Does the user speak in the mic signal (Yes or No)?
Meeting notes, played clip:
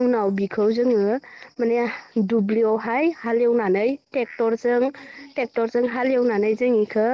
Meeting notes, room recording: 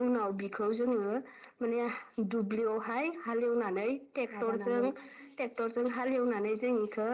Yes